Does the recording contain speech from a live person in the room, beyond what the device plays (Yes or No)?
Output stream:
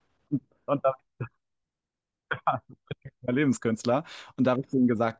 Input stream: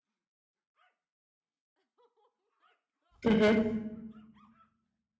Yes